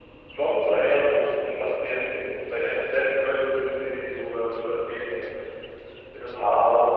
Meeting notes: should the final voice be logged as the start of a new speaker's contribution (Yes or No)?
Yes